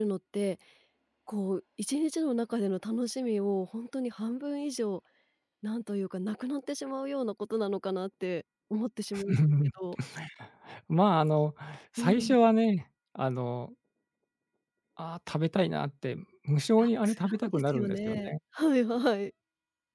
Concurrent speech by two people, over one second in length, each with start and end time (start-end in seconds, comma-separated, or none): 16.8-18.3